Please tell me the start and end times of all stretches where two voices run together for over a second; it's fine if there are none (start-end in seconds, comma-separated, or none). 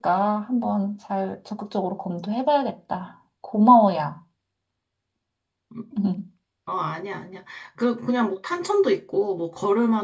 none